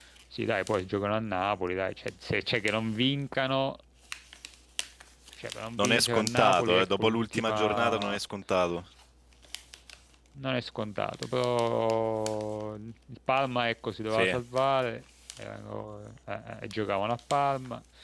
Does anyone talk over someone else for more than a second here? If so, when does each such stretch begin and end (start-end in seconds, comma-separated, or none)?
5.8-8.2